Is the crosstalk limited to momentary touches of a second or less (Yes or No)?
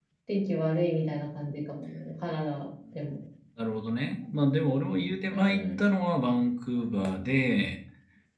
Yes